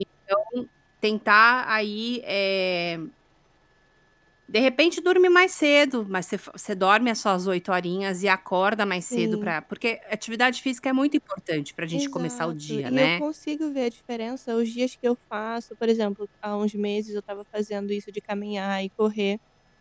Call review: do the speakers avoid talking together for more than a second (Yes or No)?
No